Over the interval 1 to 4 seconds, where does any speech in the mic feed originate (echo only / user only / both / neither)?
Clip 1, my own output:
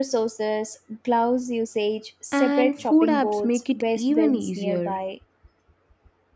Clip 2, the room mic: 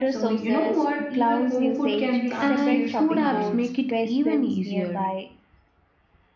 both